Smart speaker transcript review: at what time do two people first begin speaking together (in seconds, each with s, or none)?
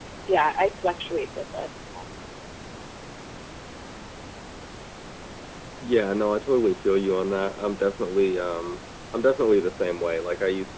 none